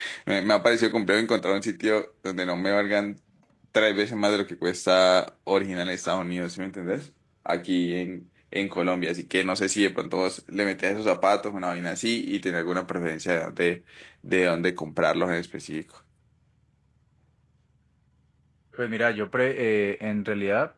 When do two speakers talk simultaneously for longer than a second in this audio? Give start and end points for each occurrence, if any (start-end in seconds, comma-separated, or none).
none